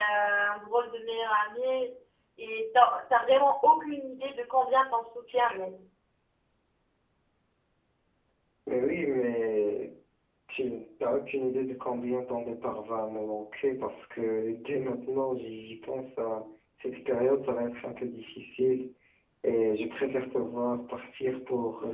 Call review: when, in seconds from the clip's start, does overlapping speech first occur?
none

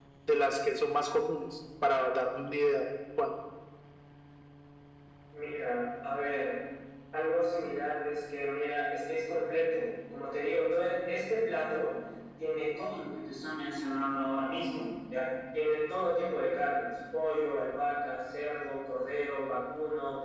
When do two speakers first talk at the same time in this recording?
none

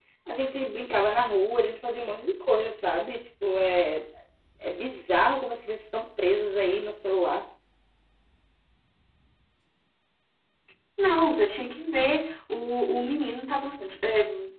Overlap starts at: none

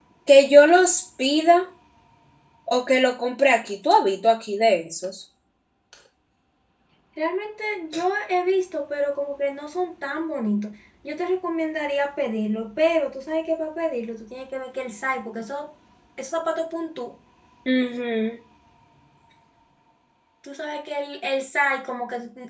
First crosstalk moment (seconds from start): none

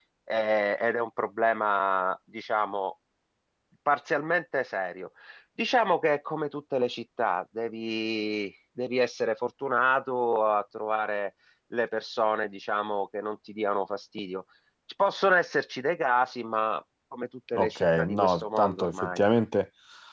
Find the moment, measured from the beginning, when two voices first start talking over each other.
17.5 s

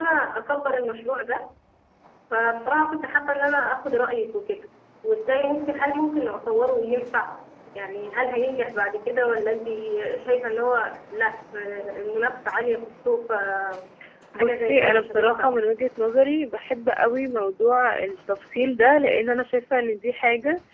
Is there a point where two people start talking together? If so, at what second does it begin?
14.3 s

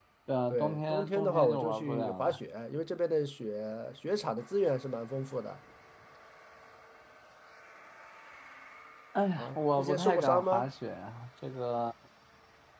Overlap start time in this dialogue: 0.5 s

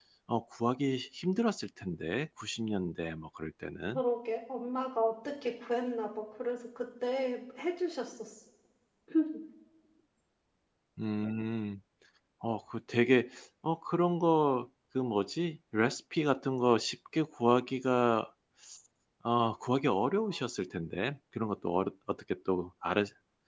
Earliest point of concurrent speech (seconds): none

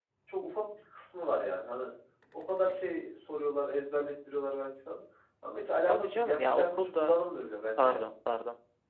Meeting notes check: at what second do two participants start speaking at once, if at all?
5.9 s

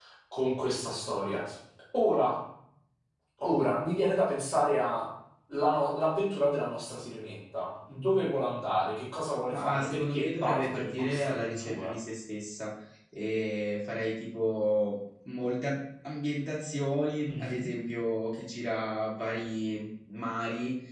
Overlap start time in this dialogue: 9.5 s

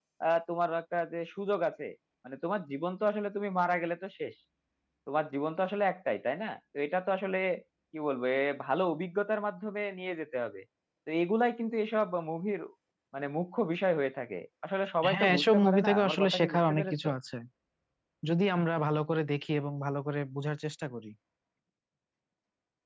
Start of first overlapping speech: 15.0 s

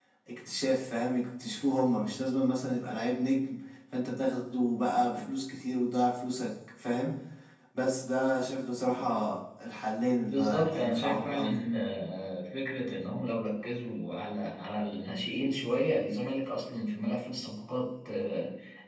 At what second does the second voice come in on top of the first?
10.3 s

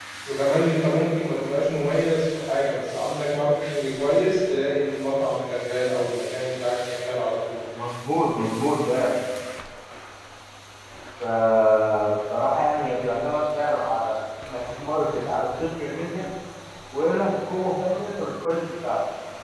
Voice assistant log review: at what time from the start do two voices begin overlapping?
none

